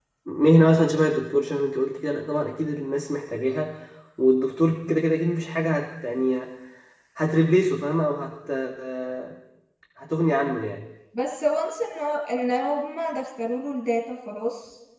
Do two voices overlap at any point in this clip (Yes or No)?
No